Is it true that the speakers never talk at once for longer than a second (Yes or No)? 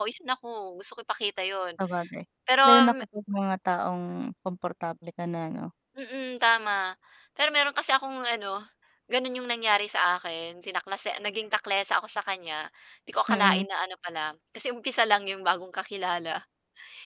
Yes